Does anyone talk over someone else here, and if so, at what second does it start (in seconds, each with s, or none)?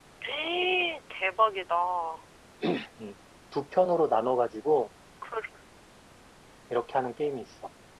none